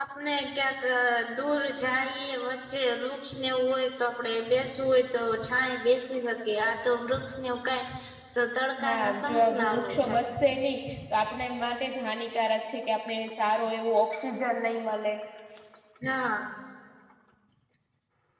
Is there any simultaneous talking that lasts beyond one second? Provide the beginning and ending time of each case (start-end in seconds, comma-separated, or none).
8.8-10.2